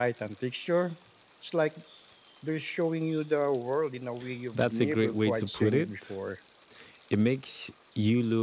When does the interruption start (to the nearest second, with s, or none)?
5 s